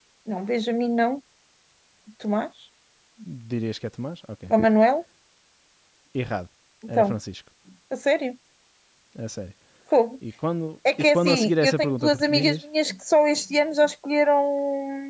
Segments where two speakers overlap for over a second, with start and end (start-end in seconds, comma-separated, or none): 11.1-12.6